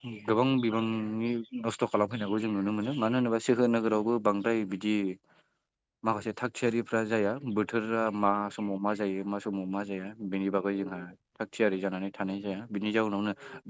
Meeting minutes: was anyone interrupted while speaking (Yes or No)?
No